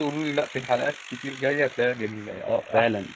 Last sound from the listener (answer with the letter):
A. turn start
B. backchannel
A